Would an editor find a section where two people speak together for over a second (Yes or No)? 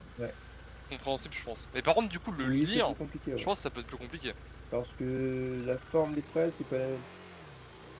No